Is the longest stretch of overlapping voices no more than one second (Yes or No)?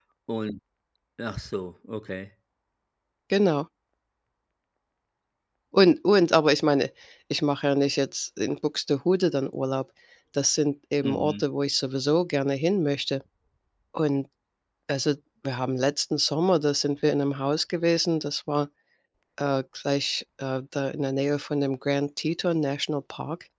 Yes